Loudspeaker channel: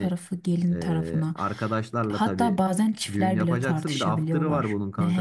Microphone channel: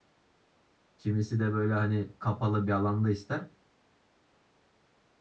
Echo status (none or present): none